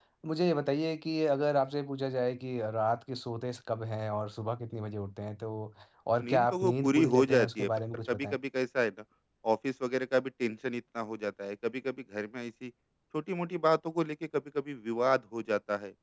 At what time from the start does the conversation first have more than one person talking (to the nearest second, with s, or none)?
6 s